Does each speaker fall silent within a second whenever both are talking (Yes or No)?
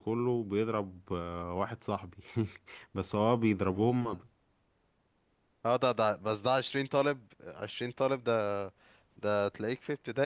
Yes